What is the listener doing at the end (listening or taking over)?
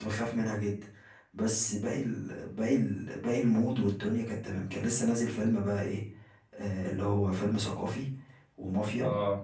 listening